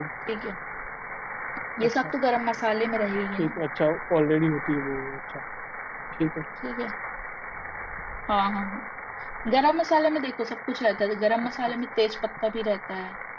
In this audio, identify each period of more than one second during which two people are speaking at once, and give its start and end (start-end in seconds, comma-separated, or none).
none